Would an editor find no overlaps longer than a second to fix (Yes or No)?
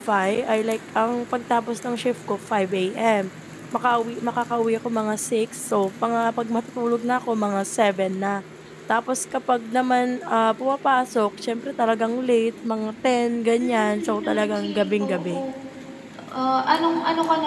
No